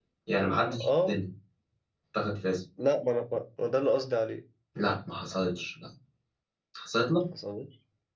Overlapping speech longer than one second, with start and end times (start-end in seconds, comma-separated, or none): none